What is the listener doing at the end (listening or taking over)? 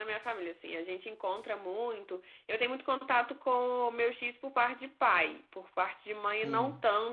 listening